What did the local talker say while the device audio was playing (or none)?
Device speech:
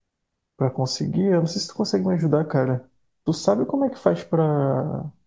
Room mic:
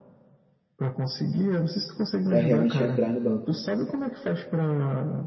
para realmente entrar no banco.